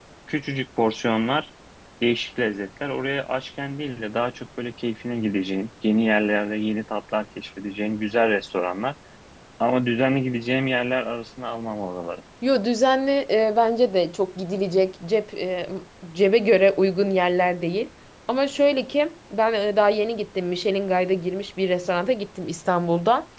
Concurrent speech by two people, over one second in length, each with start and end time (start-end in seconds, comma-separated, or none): none